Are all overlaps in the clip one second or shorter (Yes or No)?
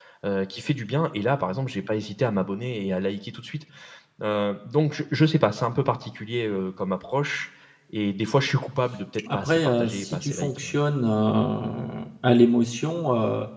No